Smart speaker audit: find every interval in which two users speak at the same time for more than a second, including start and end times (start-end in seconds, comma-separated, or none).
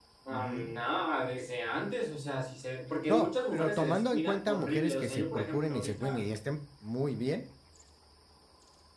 3.1-6.2